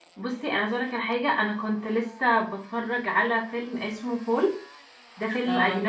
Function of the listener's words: listening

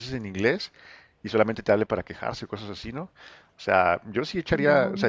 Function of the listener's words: listening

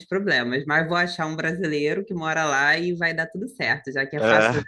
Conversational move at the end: listening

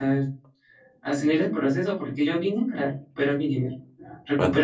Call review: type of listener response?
listening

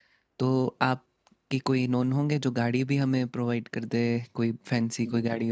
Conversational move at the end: taking over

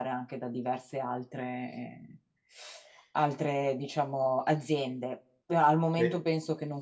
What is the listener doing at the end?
listening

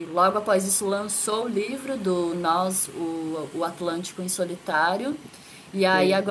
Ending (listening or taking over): listening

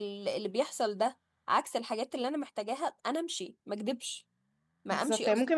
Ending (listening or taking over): taking over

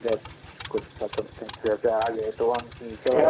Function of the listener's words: taking over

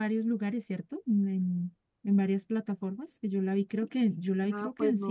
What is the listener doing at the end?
taking over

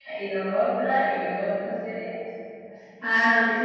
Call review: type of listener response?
taking over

